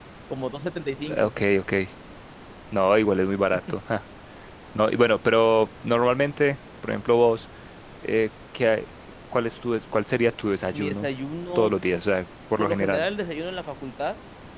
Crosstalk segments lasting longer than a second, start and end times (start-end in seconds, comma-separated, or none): none